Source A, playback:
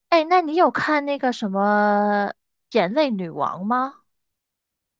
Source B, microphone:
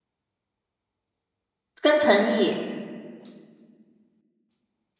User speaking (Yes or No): Yes